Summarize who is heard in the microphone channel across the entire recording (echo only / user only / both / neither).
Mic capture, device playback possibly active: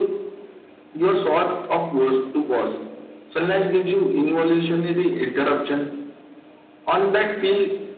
echo only